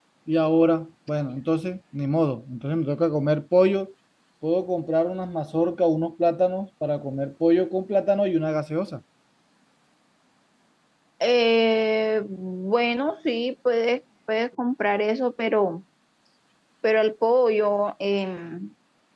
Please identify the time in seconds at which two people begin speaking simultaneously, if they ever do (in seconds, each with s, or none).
none